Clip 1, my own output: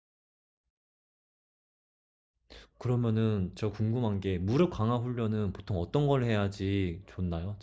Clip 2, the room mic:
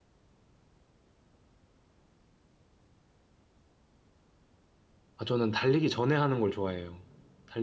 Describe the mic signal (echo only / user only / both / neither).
user only